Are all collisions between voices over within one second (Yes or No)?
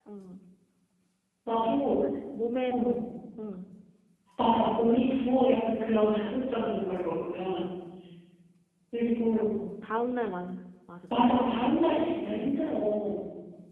No